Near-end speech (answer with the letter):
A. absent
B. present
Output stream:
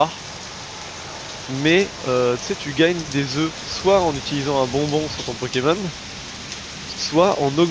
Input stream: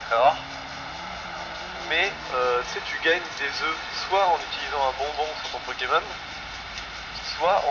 A